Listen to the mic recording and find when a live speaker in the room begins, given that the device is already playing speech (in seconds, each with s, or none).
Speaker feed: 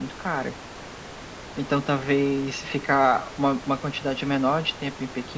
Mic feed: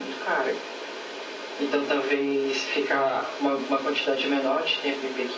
none